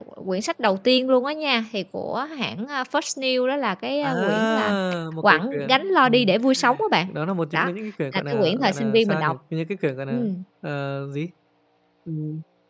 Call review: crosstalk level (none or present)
present